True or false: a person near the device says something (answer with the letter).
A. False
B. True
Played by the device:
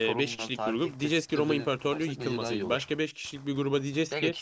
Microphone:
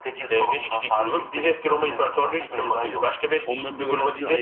B